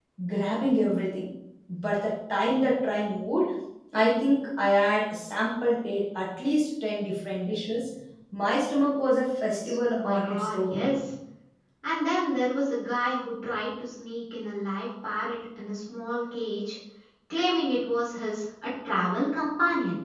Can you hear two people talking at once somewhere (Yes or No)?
Yes